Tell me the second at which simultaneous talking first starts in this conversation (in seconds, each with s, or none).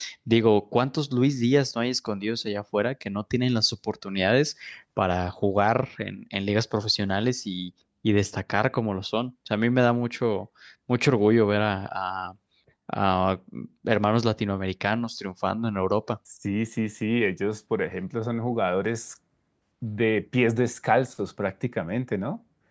none